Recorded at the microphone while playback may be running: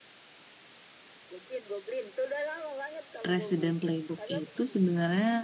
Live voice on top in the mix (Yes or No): Yes